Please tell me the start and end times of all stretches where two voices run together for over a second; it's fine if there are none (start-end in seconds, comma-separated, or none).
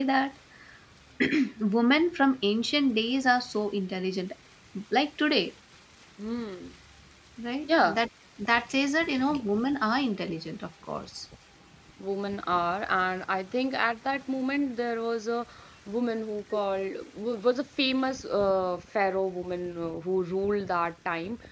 none